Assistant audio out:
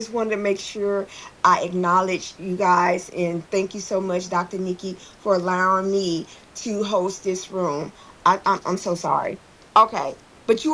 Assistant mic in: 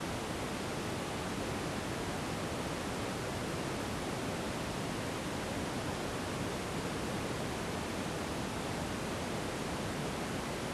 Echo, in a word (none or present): none